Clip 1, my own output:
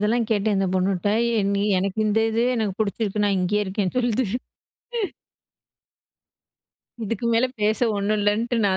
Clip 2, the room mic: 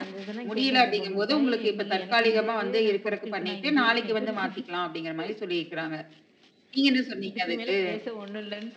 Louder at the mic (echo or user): user